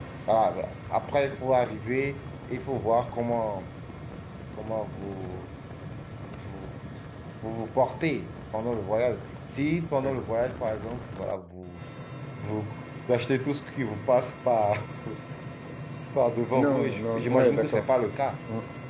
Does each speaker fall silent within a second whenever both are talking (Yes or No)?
No